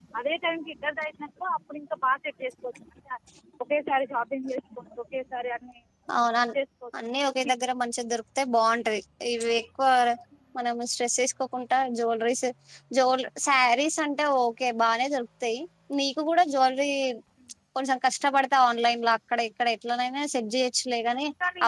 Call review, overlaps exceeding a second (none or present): none